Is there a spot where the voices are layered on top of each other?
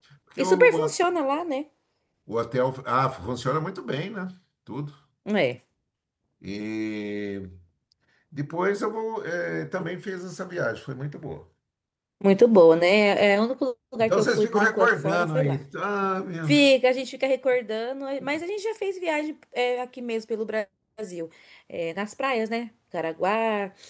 Yes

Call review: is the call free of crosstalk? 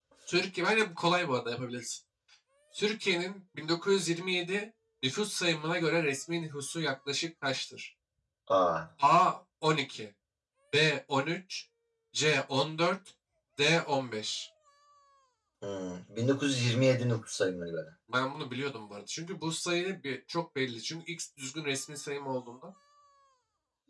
Yes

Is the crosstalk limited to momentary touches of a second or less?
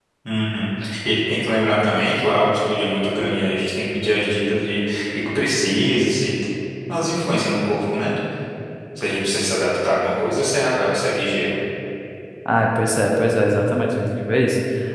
Yes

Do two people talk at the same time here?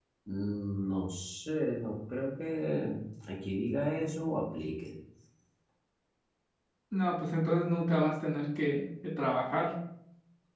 No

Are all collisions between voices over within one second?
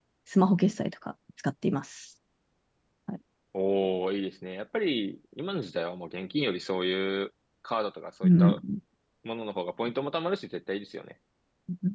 Yes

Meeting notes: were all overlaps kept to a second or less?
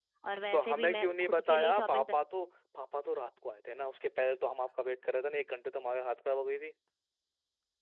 No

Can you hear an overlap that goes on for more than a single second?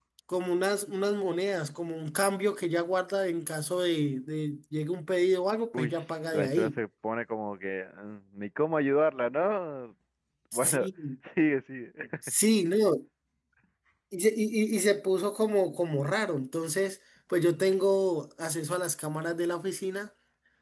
No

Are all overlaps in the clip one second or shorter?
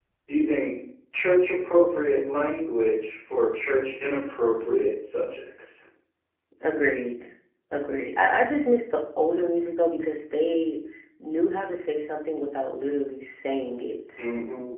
Yes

